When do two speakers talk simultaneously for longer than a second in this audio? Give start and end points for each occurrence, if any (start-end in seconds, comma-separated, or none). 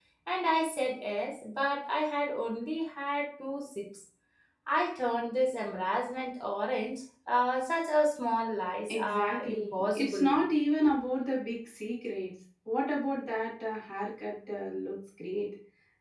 8.9-10.4